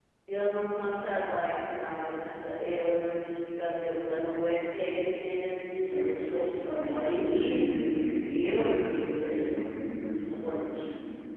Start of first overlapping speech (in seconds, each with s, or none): 5.9 s